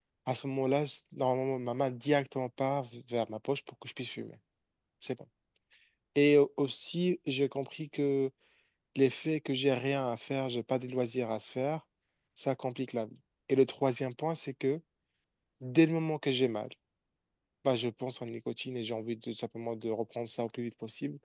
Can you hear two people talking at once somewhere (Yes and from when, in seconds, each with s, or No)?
No